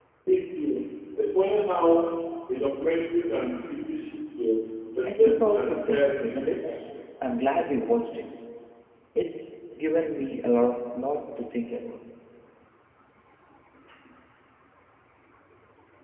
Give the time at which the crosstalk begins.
5.0 s

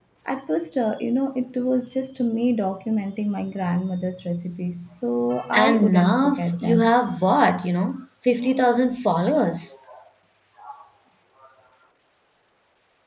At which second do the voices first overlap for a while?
5.5 s

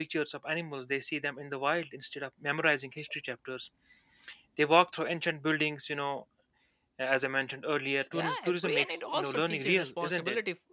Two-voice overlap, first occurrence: 8.1 s

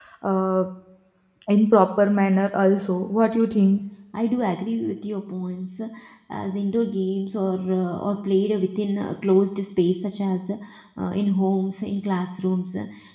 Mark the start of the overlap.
none

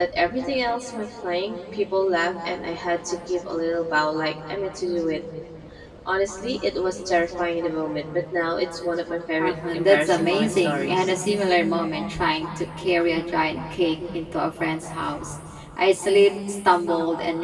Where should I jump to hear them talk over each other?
9.4 s

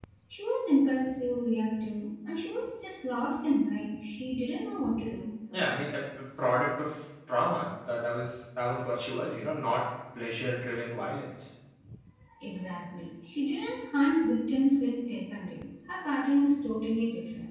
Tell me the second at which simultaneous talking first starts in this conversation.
none

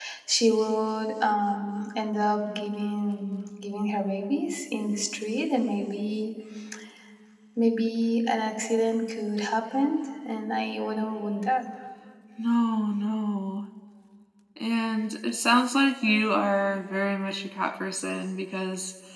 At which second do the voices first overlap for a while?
none

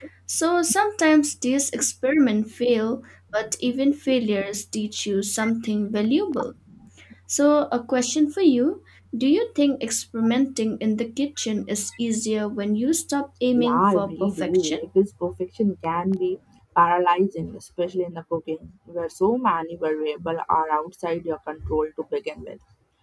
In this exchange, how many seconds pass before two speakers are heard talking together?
13.6 s

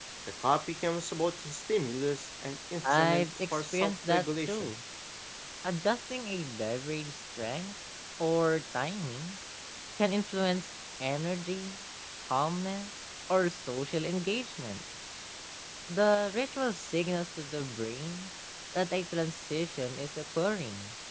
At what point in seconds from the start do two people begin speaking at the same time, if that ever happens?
2.8 s

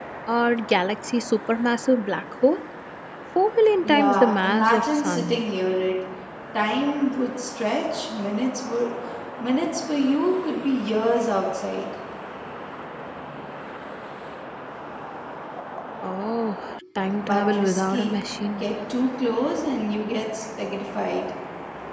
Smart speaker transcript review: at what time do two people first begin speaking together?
3.8 s

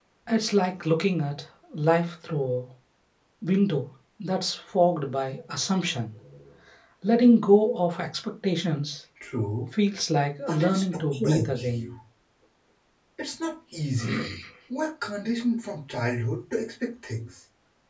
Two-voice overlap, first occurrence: 10.4 s

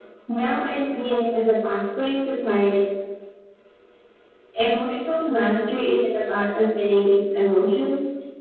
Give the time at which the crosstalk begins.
none

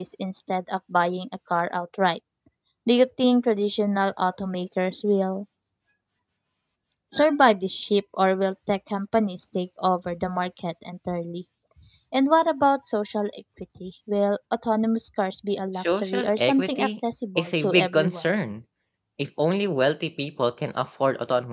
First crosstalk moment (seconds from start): 15.8 s

